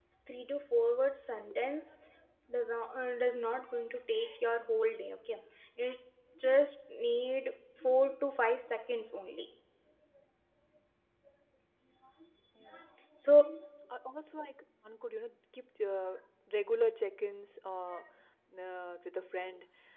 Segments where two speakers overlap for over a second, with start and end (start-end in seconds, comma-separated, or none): none